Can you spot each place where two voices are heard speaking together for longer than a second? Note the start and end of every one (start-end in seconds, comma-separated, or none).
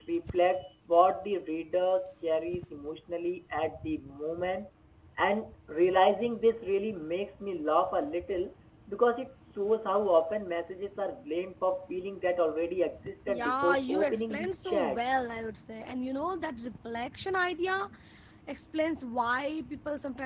13.3-15.0